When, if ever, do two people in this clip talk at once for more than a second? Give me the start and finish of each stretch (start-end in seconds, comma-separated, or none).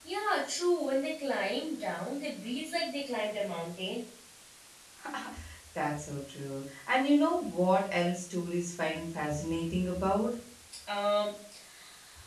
none